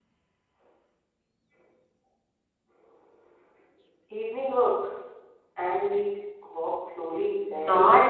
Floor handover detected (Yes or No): Yes